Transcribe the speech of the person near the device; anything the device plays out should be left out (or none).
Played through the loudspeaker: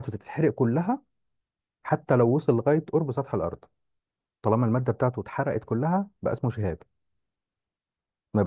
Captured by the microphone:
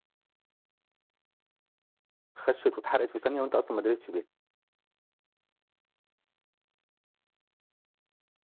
خشت واتحرقت في ثانيه وانت اصلا ما دريتش بيها